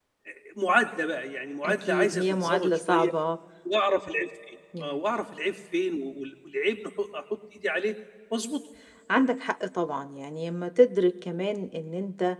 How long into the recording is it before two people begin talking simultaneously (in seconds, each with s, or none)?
1.6 s